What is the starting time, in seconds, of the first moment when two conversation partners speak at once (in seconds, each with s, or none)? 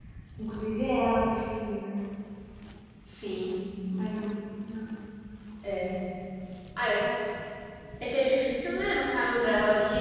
none